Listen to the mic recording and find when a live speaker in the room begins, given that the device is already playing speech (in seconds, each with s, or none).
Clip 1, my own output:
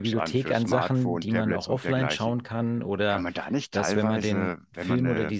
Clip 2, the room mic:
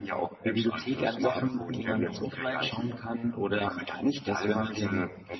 none